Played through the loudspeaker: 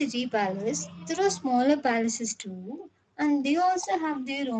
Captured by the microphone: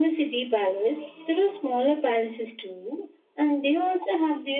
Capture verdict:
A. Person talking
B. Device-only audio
B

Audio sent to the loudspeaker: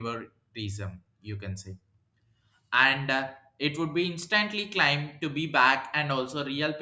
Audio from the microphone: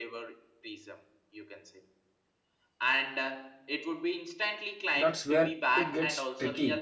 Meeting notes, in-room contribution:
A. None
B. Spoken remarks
B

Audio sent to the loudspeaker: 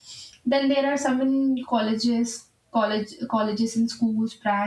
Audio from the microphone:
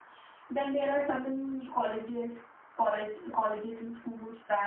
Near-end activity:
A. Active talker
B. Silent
B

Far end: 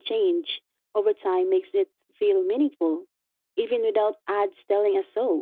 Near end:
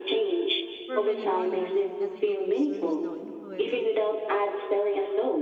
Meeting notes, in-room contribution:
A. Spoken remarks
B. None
A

